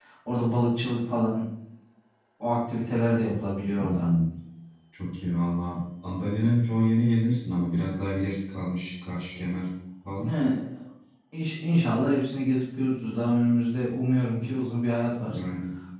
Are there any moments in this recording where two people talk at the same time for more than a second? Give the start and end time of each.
none

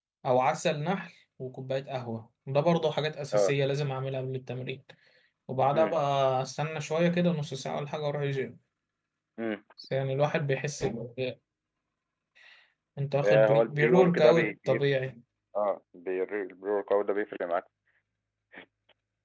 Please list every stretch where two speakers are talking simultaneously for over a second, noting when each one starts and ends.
13.2-14.8

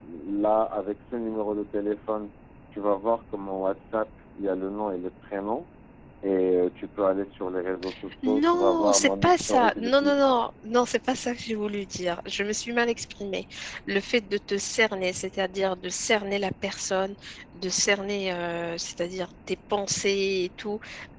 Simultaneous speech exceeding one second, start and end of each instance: 8.2-10.1

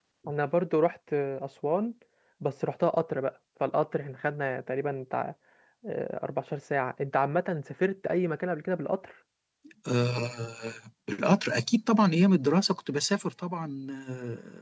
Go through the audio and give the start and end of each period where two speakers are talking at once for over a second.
none

